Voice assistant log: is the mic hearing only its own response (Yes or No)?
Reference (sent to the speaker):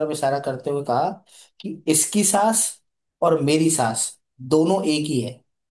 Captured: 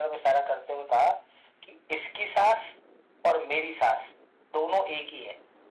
Yes